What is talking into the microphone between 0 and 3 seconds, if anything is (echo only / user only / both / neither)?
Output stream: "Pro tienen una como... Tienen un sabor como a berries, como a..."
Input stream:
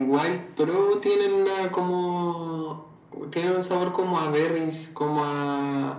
echo only